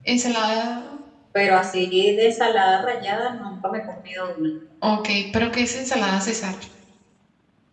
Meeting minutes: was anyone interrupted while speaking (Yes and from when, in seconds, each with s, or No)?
No